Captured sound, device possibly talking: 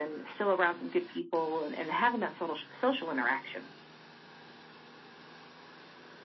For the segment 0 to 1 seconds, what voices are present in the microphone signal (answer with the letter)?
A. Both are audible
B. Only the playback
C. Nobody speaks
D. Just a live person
B